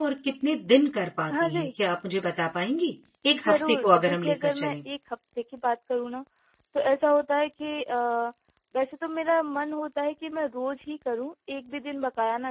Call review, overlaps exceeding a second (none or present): present